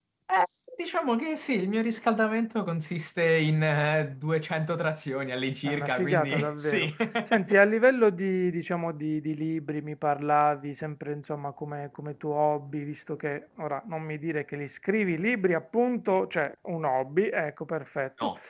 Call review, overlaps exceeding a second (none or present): present